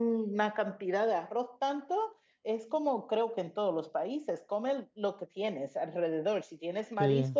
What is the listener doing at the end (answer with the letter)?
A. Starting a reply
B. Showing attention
B